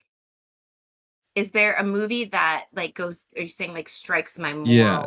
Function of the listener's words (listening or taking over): taking over